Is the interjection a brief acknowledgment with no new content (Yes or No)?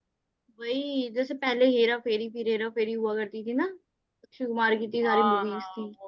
No